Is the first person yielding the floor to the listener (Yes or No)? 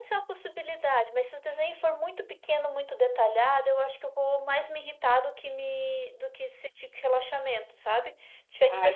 No